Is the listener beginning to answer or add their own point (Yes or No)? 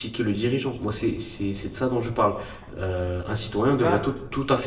No